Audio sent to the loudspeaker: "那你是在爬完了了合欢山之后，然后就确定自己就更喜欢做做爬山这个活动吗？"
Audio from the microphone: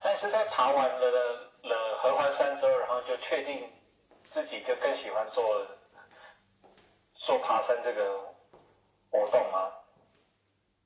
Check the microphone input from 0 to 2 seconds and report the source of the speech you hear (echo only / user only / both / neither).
echo only